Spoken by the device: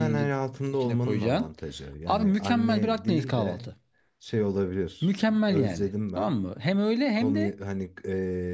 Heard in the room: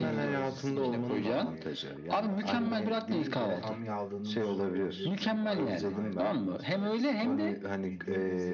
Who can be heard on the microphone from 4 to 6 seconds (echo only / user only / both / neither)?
both